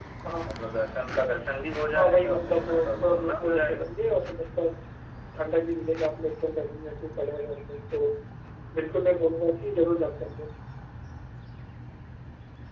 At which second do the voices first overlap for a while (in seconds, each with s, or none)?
1.9 s